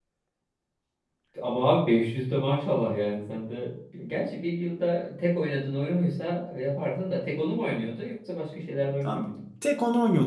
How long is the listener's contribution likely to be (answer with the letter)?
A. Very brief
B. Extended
B